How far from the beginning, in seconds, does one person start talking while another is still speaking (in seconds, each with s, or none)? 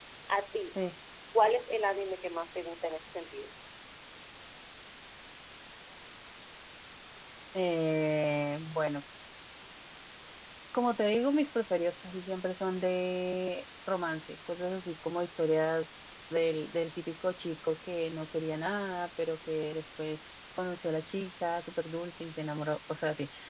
none